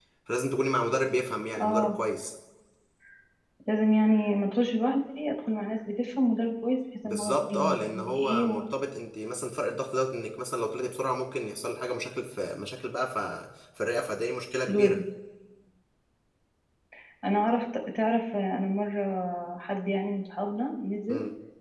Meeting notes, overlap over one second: present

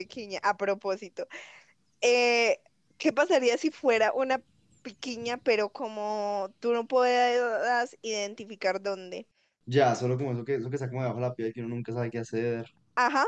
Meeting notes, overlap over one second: none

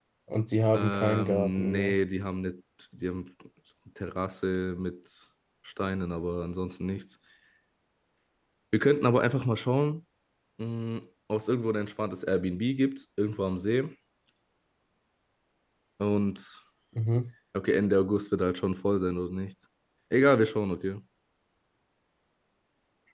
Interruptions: present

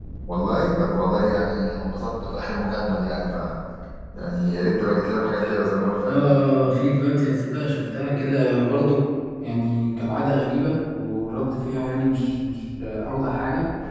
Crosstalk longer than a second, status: none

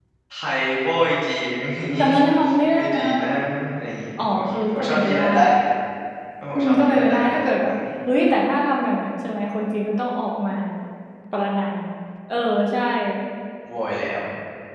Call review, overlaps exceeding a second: present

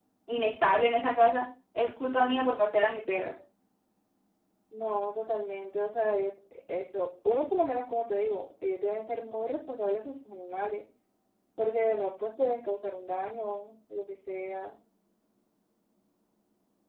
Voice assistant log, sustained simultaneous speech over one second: none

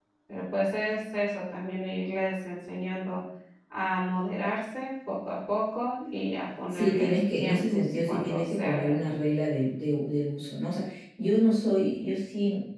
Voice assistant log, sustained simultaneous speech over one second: present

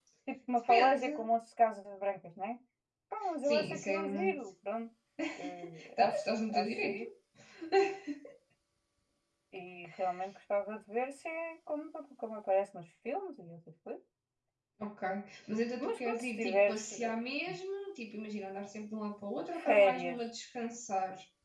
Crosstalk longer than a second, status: present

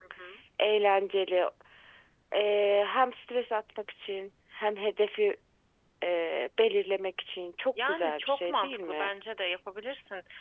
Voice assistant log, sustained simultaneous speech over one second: present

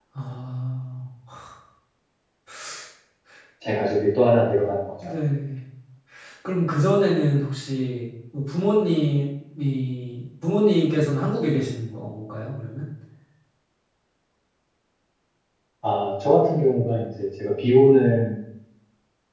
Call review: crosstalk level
none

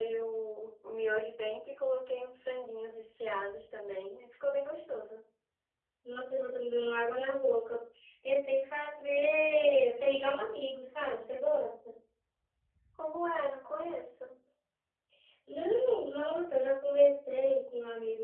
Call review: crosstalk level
none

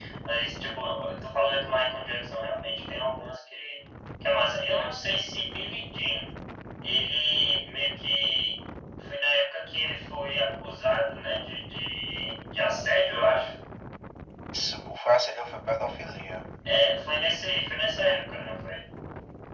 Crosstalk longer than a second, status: none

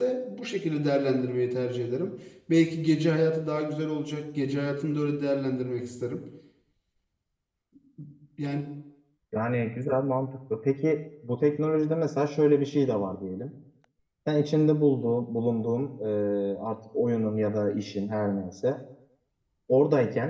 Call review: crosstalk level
none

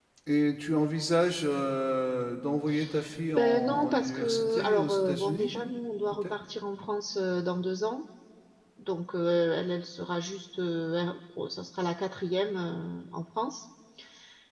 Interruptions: present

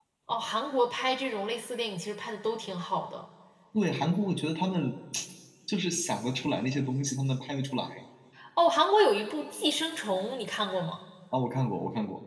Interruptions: none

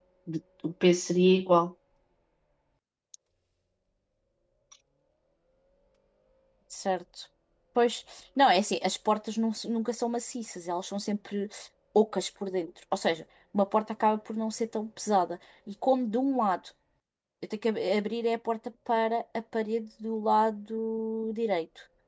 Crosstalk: none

